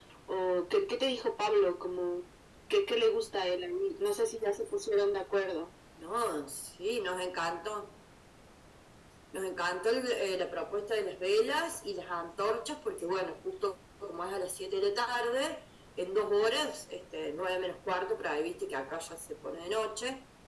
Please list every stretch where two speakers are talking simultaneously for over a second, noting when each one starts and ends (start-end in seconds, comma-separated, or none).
none